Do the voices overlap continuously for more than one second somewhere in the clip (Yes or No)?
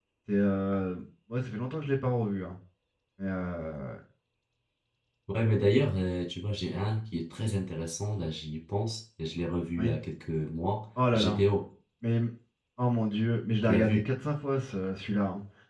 No